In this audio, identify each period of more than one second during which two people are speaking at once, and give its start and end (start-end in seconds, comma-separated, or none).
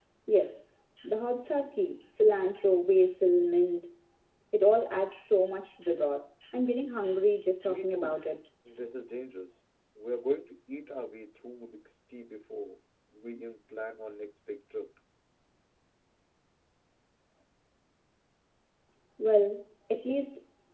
none